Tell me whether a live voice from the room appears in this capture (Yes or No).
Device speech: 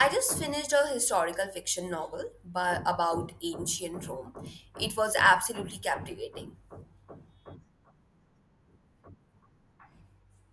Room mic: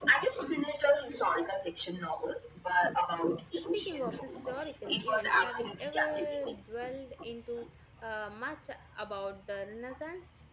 Yes